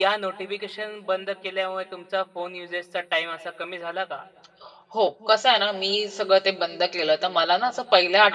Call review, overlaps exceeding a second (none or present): none